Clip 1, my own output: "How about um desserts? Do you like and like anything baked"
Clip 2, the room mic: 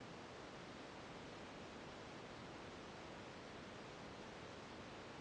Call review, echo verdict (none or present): none